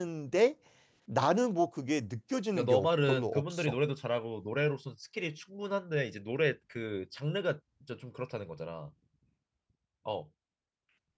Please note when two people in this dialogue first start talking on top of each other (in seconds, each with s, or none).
2.5 s